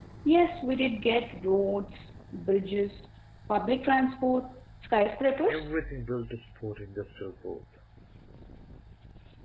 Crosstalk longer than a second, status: none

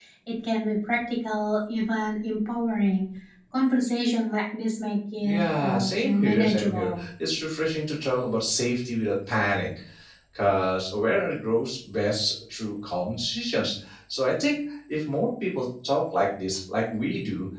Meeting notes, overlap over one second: present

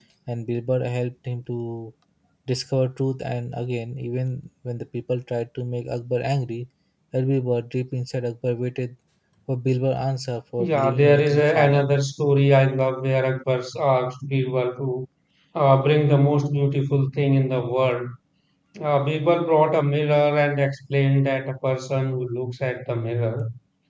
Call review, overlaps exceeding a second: present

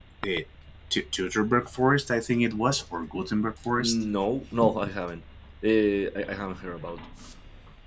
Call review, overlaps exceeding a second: none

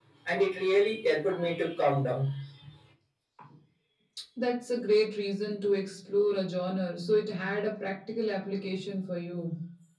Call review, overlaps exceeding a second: none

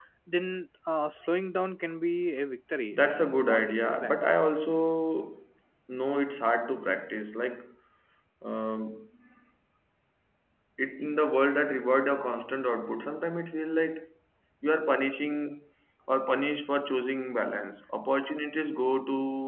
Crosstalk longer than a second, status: present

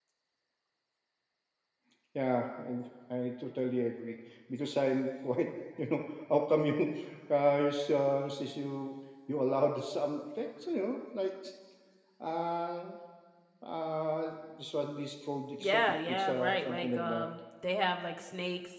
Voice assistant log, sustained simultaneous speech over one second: present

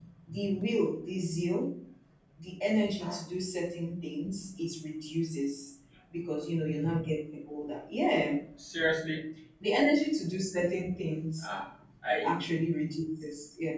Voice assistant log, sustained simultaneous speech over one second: none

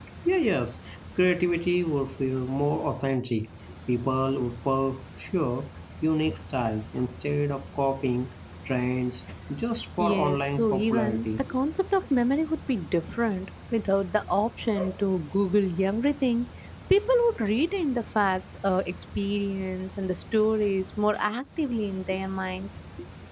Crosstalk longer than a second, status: present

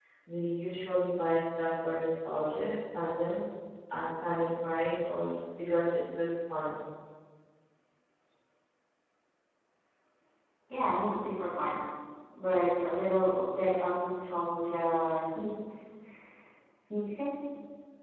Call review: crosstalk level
none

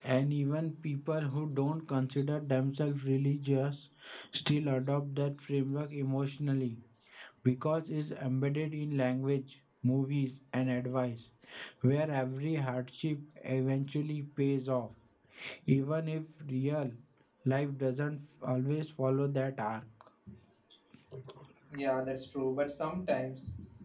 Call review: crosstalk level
none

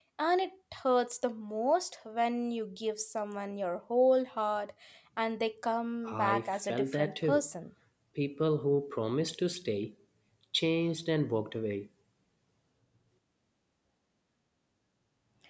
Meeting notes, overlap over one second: present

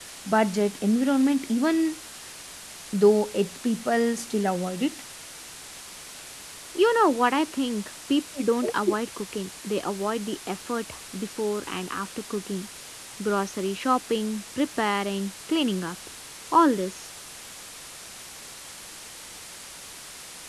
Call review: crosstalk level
none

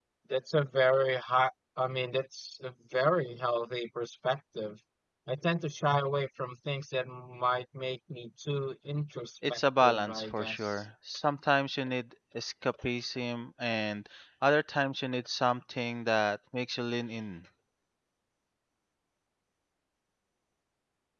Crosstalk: present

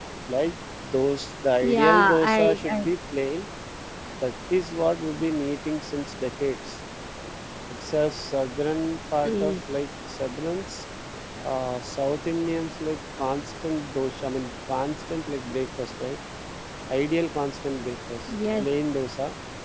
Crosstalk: present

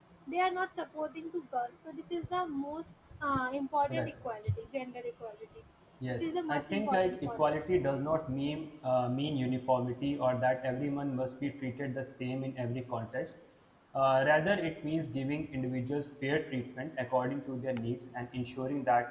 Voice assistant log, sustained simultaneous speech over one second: present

